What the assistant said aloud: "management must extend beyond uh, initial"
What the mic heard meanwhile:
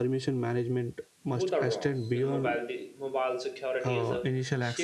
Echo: present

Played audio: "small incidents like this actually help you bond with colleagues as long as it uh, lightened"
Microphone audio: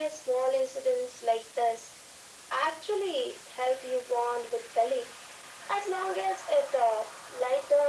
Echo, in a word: present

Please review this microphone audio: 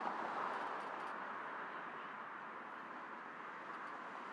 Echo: none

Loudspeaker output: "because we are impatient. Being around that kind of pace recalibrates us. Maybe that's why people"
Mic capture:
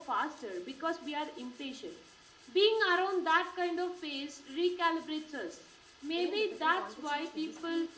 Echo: present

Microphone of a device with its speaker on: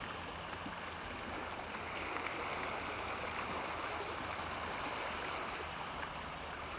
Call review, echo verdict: none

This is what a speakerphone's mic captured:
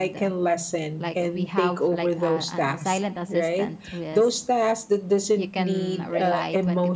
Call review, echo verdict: present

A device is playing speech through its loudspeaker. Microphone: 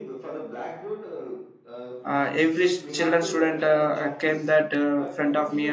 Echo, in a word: present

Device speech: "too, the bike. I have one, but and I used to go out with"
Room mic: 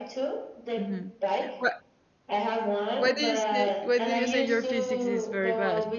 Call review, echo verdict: present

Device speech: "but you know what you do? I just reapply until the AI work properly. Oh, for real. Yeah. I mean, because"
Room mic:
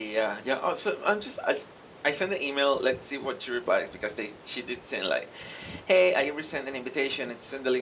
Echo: none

